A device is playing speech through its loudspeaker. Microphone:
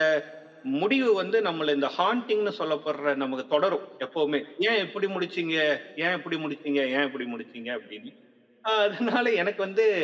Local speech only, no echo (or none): none